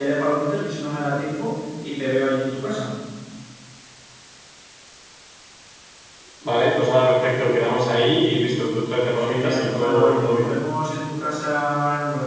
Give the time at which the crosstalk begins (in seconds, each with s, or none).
9.1 s